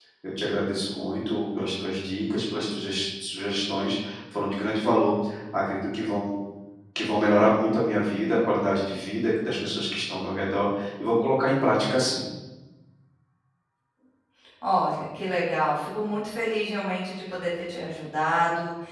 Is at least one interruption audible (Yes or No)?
No